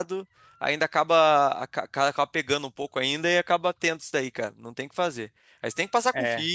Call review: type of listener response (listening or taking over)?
listening